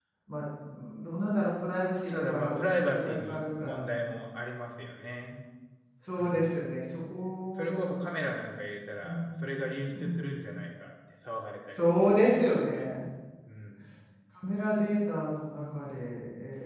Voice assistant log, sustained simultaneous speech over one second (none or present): present